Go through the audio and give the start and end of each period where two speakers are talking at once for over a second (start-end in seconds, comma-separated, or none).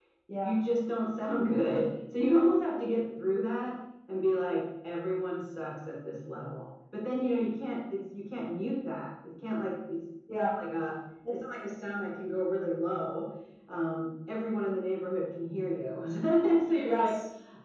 none